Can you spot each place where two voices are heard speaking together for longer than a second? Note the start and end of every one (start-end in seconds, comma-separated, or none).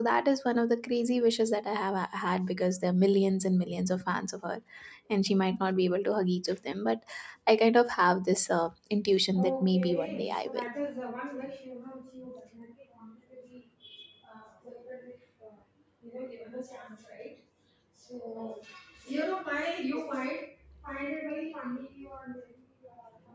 9.4-10.7